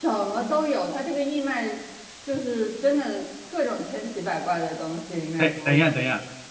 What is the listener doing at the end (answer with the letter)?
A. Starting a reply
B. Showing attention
A